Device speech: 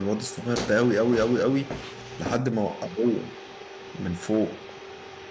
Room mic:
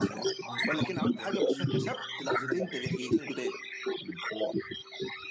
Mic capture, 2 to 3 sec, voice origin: both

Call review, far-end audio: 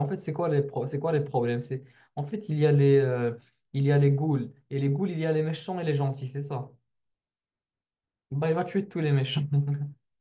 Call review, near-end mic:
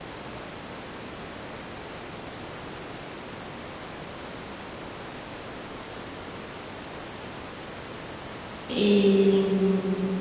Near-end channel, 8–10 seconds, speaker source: user only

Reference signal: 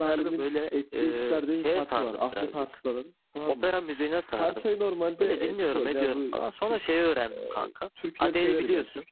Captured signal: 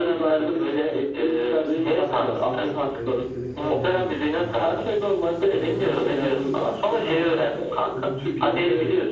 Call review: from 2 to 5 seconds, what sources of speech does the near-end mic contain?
both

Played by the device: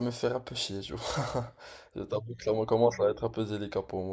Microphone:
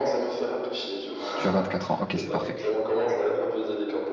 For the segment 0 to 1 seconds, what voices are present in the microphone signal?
echo only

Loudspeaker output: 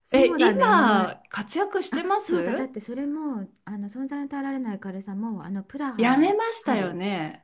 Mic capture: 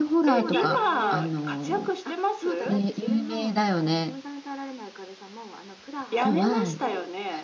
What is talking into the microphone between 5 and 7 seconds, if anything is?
both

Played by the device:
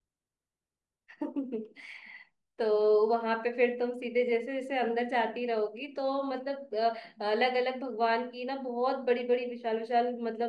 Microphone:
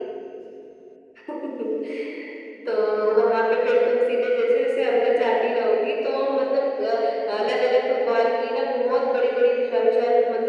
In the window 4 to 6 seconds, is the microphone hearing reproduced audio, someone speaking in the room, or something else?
echo only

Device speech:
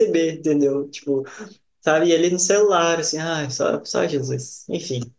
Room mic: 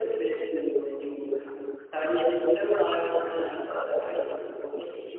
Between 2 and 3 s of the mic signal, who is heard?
echo only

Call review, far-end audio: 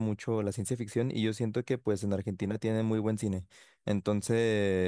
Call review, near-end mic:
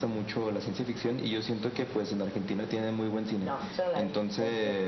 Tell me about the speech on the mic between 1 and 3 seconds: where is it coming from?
echo only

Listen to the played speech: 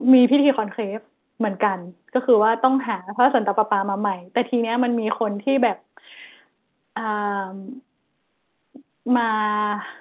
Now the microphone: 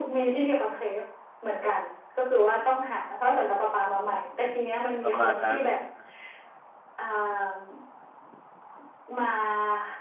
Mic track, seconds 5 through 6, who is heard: both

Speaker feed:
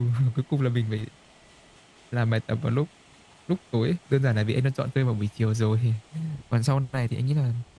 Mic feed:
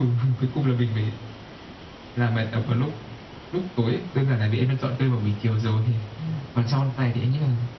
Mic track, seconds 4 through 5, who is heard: echo only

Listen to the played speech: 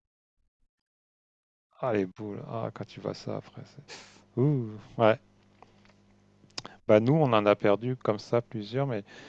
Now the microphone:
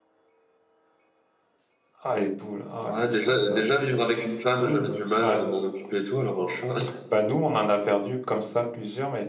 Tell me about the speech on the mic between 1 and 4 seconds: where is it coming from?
both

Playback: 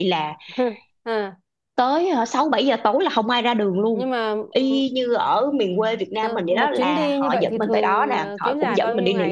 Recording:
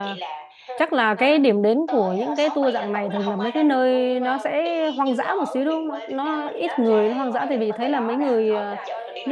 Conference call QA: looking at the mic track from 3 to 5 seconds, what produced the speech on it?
both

